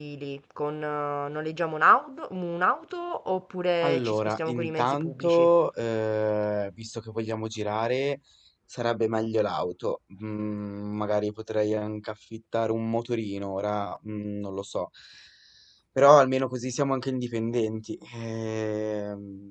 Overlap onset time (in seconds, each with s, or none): 3.8 s